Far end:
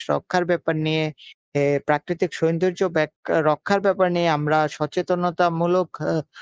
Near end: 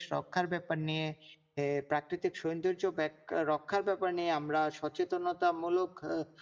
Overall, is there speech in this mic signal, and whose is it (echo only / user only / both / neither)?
echo only